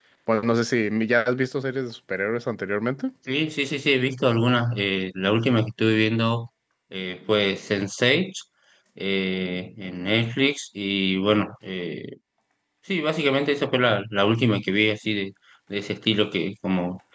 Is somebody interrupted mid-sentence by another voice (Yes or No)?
No